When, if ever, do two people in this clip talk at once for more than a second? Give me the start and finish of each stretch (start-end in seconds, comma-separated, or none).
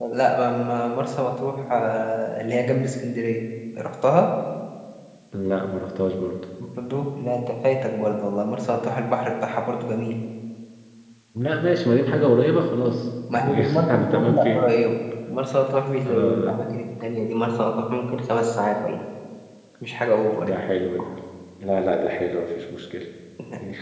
13.3-14.6